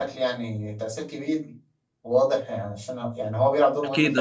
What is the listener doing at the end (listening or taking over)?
taking over